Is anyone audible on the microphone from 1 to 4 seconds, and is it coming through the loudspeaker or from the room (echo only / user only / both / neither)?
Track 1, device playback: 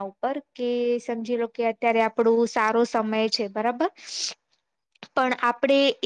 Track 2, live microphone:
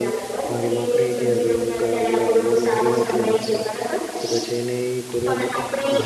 both